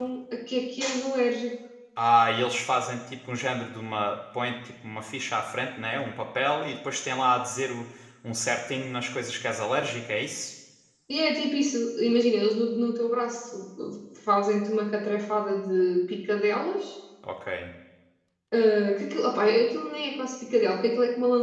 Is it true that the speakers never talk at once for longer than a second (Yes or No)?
Yes